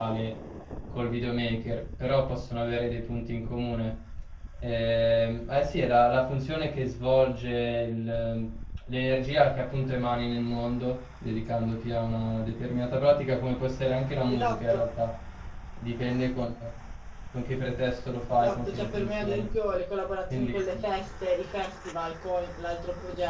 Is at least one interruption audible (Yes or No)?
Yes